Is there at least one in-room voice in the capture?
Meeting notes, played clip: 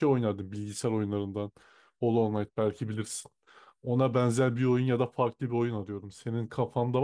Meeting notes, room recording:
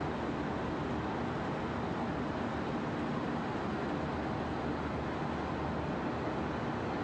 No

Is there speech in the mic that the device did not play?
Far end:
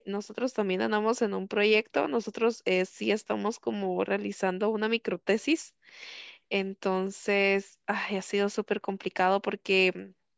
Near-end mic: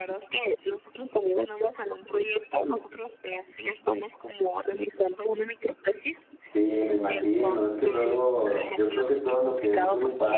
Yes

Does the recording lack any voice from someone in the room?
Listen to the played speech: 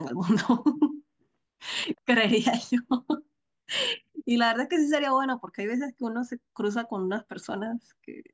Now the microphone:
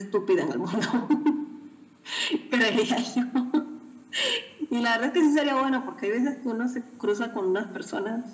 Yes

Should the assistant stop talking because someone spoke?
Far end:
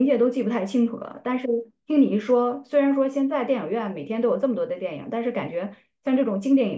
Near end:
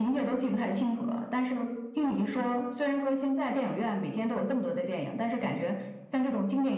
No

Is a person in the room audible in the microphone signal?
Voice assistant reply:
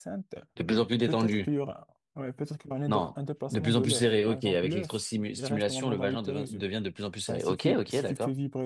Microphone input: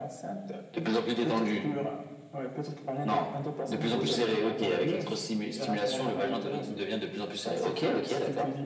No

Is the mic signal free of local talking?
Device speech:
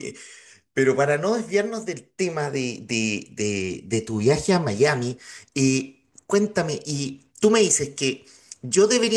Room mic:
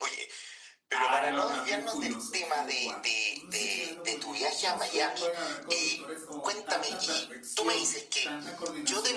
No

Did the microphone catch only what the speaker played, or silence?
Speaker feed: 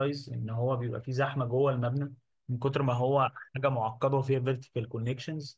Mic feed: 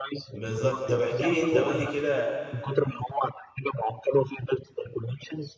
No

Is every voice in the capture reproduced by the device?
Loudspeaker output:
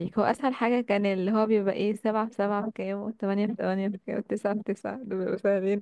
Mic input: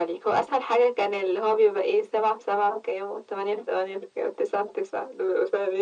Yes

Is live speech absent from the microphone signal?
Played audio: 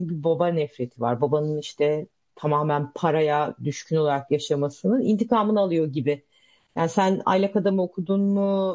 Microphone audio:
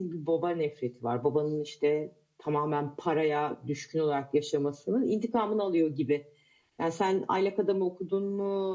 Yes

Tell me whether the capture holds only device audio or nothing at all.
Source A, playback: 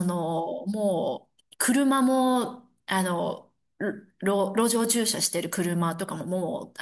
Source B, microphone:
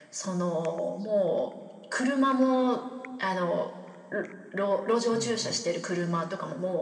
No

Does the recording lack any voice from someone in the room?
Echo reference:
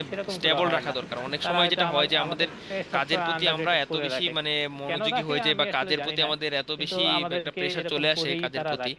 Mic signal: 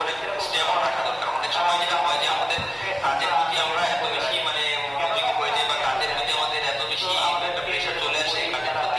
Yes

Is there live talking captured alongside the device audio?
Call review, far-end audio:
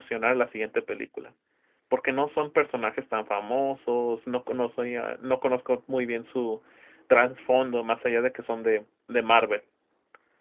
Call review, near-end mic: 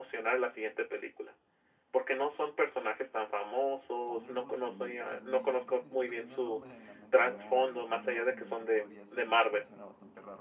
Yes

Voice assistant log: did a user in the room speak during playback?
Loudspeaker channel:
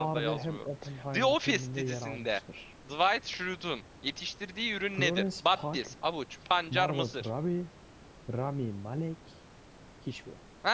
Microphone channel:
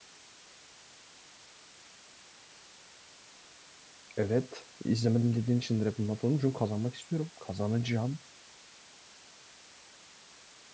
Yes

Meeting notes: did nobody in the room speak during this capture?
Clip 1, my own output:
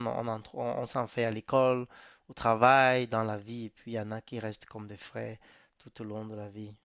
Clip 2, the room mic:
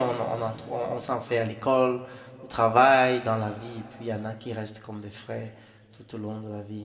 Yes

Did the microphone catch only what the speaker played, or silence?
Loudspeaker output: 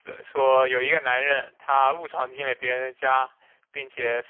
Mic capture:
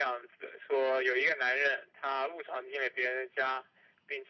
Yes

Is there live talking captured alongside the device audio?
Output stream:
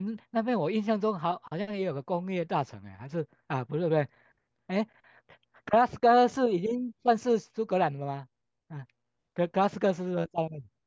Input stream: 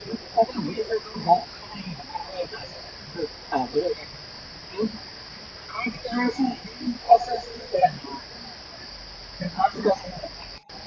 No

